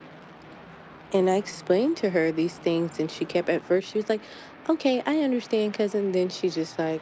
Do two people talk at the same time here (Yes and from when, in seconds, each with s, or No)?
No